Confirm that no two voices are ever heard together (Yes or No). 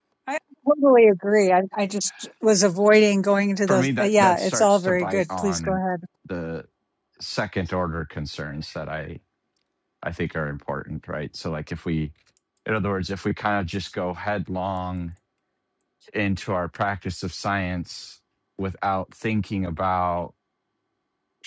No